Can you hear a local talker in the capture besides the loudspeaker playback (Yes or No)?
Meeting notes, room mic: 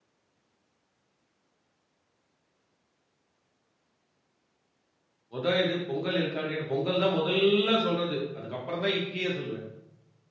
Yes